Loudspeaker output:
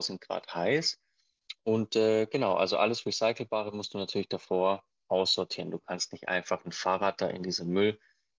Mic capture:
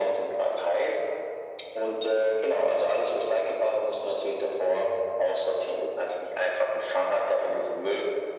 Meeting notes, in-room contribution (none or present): none